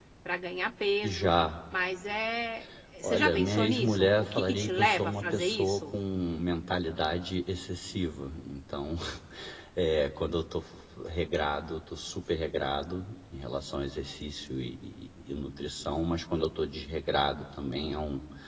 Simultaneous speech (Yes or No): Yes